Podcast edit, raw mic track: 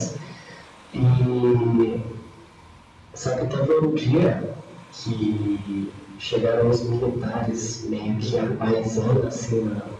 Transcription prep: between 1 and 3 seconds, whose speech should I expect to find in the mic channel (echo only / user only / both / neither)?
echo only